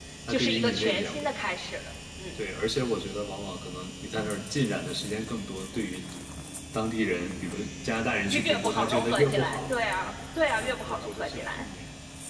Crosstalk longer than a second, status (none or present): present